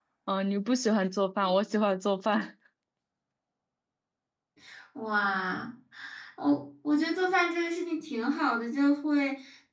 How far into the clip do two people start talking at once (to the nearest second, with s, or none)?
none